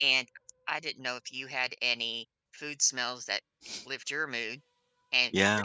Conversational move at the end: listening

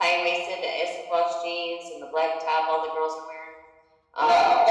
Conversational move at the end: taking over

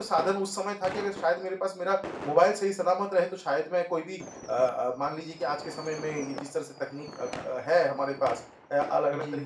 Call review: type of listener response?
listening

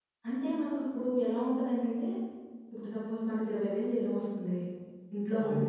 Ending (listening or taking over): listening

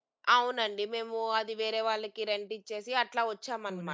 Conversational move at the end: taking over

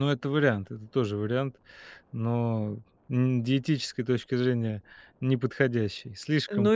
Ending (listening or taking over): taking over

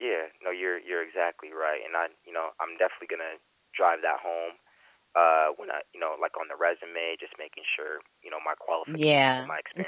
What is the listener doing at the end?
taking over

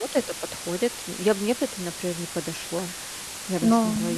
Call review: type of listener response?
taking over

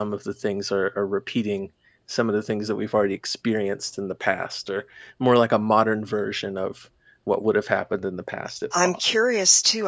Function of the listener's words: taking over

